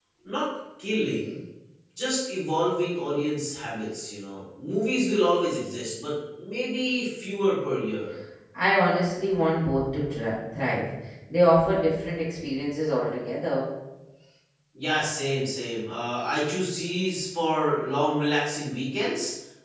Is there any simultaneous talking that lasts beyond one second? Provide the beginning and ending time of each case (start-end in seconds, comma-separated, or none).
none